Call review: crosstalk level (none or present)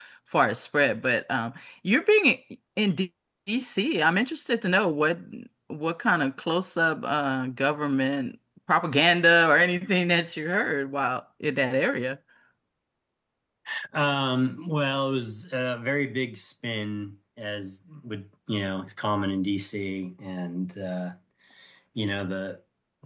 none